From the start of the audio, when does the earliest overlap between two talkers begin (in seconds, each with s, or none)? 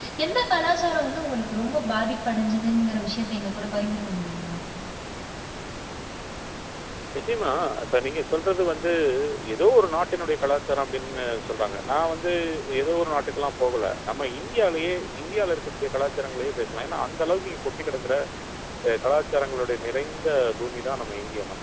none